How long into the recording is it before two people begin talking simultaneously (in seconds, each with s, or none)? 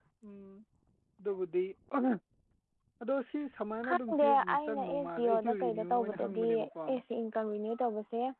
3.9 s